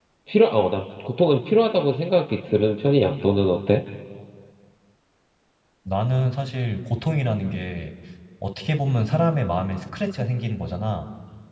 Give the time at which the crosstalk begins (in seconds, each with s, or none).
none